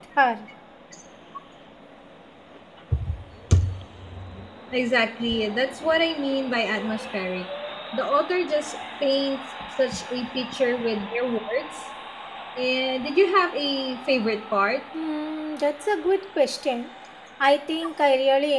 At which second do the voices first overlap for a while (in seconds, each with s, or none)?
none